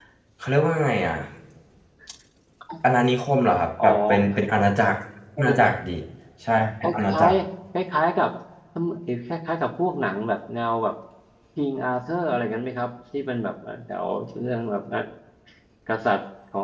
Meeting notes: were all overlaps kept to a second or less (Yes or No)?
Yes